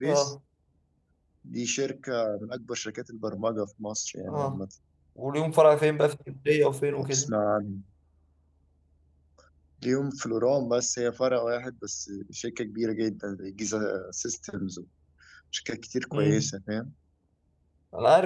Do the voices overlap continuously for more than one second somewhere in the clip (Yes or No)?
No